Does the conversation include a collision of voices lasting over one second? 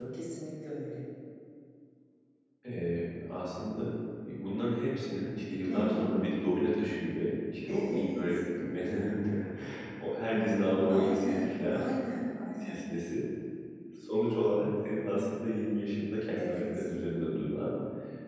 Yes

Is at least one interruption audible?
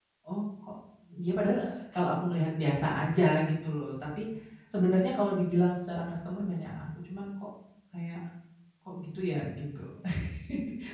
No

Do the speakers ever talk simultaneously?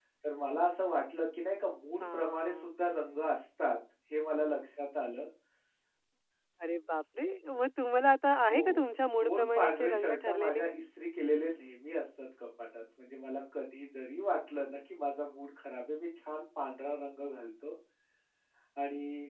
Yes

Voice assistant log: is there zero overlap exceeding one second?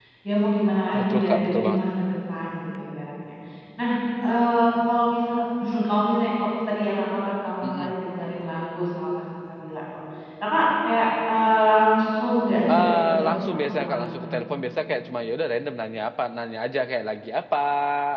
No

